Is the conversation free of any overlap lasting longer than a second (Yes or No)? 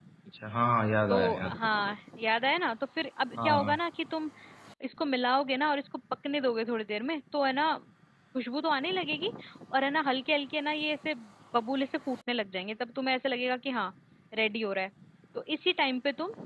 Yes